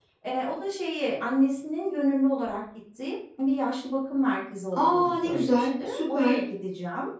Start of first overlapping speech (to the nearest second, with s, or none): 5 s